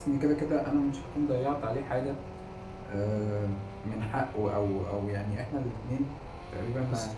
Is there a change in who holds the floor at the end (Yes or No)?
No